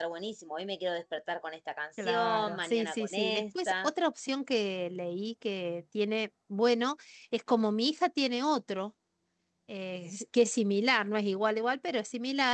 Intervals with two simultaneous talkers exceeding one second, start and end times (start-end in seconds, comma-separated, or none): 2.0-3.9